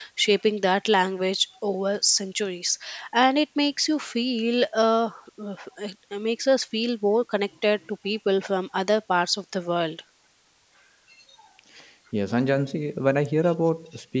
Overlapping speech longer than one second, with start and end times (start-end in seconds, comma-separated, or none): none